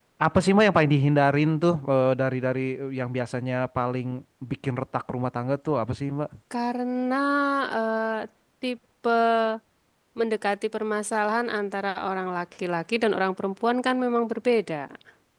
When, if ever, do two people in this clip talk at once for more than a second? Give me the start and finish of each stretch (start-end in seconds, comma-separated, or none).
none